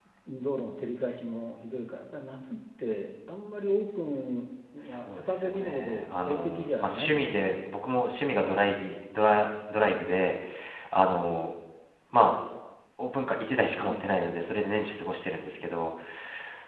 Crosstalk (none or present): present